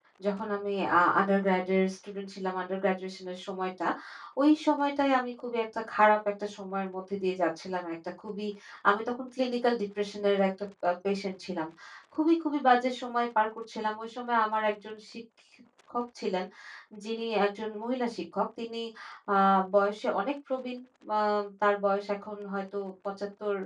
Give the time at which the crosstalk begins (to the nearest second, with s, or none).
none